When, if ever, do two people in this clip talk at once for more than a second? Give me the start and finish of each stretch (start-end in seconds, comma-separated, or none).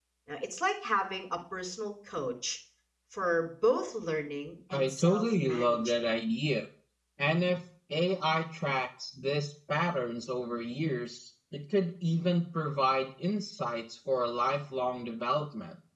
4.7-6.1